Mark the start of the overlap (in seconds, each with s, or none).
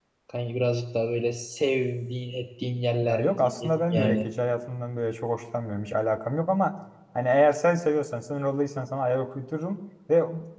3.0 s